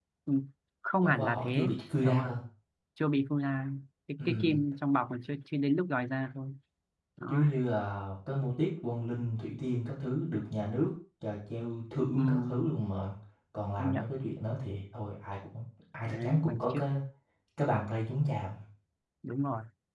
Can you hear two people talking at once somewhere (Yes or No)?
Yes